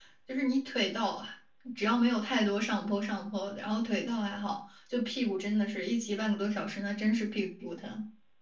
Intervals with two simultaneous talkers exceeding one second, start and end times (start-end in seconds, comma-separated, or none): none